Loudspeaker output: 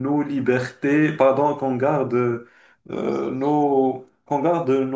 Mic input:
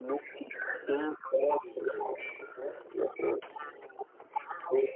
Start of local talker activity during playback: 1.4 s

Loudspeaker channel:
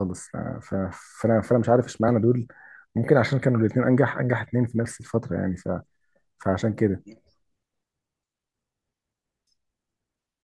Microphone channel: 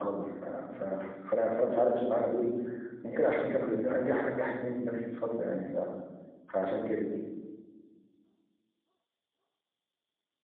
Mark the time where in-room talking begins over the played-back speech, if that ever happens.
none

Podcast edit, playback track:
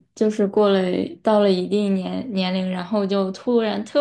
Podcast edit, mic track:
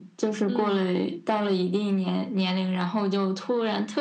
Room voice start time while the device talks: 0.5 s

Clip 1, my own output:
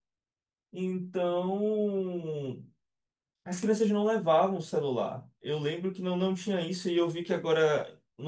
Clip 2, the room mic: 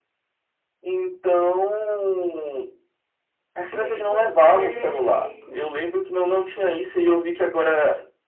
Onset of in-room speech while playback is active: 3.7 s

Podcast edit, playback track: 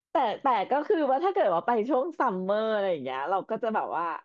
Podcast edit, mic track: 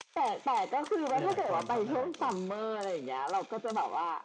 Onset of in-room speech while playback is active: 1.1 s

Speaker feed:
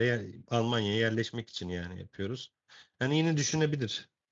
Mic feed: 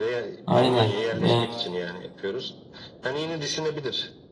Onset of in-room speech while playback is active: 0.5 s

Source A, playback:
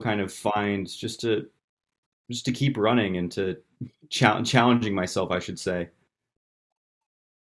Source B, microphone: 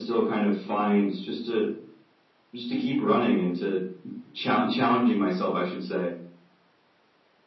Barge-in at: none

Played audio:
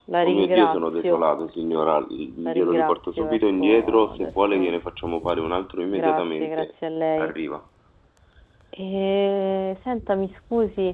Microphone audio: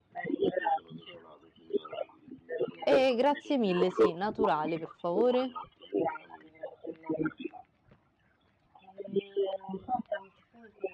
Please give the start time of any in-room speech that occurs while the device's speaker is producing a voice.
2.8 s

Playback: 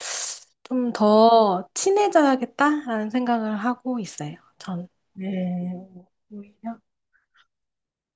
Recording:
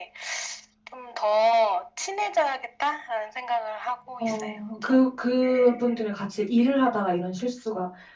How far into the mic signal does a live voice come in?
4.2 s

